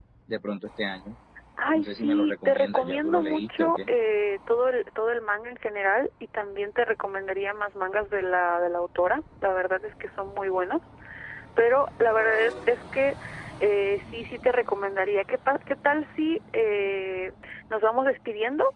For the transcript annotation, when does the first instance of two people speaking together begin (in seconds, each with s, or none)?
1.7 s